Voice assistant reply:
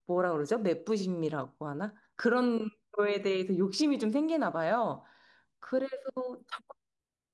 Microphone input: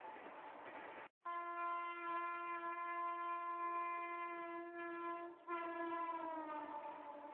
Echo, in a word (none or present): none